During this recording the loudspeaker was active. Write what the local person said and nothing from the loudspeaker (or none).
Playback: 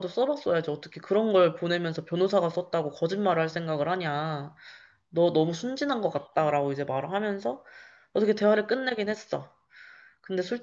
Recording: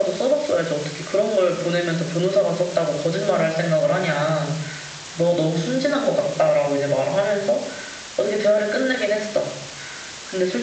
none